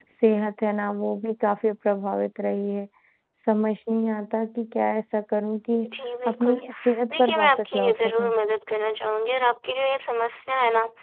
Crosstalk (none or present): present